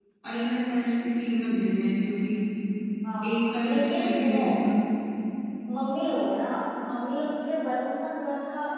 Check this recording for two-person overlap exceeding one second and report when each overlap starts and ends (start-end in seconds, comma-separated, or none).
3.2-4.4